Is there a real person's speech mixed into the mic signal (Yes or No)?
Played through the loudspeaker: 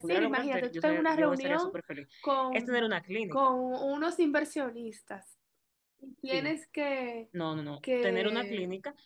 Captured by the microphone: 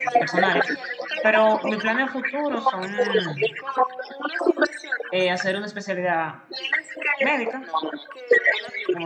Yes